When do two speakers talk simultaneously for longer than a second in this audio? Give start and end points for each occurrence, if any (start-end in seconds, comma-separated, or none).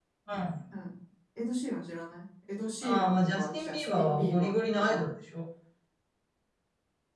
2.8-5.1